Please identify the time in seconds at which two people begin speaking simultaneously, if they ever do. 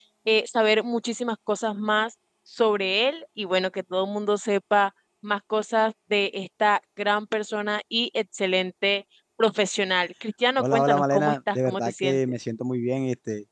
11 s

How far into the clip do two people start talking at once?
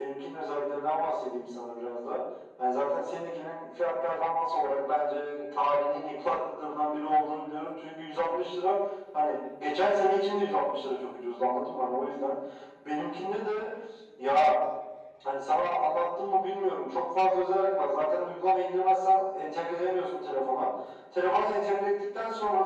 none

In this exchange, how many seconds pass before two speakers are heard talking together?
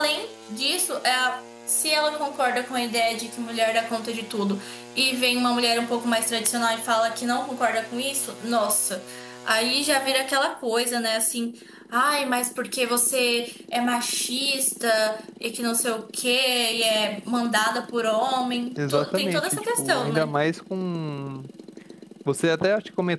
19 s

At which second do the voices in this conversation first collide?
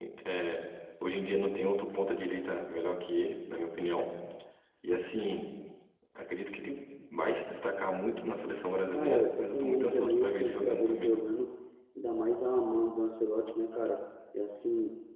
9 s

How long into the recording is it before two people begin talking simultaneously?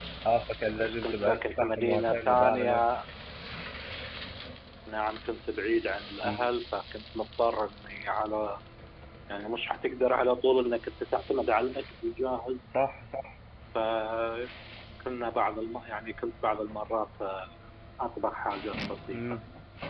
1 s

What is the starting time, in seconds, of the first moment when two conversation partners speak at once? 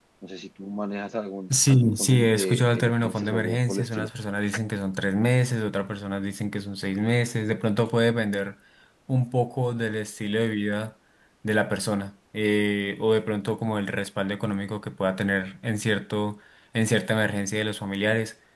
2 s

